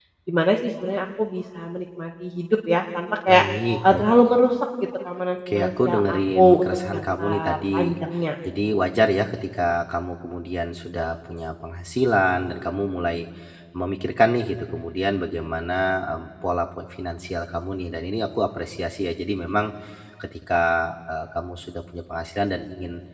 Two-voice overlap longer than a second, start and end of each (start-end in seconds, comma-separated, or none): 5.5-7.8